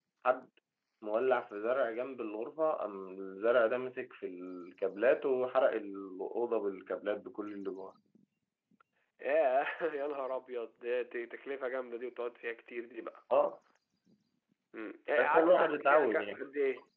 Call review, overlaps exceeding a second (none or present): present